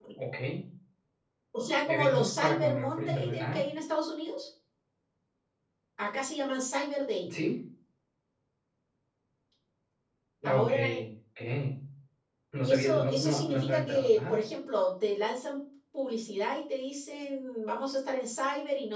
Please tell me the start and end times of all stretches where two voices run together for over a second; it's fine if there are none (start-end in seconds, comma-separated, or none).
1.9-3.7, 12.7-14.5